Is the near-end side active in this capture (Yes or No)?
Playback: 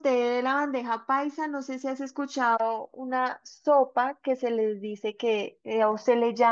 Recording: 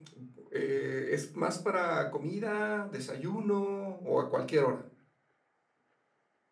Yes